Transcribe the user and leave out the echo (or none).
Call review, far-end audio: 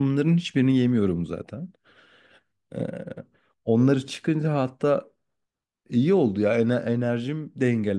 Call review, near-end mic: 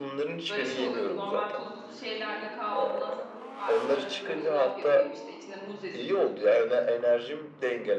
Böyle şey oluyordu. Normal tuzlu şeylerden kahvaltıdan sıkılıp artık arada böyle yulaf yapayım işte içine muz ezip